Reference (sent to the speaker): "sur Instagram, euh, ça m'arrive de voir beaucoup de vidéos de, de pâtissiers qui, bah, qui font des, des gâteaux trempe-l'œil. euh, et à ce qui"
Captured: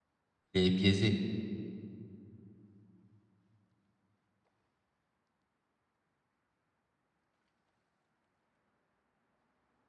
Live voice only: il est biaisé.

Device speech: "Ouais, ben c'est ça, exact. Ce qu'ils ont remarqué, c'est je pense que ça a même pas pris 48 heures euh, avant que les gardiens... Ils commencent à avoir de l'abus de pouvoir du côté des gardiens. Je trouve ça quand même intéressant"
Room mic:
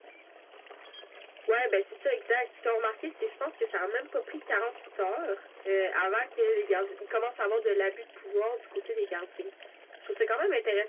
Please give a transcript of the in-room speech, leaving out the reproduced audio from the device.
none

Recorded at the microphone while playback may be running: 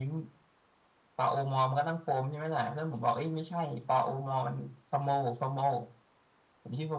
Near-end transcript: none

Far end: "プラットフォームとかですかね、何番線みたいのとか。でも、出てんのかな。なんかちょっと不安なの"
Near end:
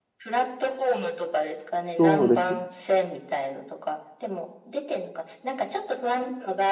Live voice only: そうですね。

